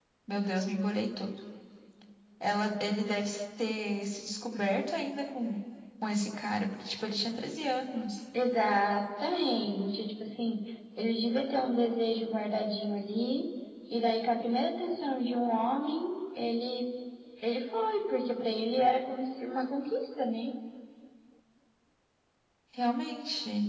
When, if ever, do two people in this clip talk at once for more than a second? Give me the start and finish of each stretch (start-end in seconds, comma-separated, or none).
none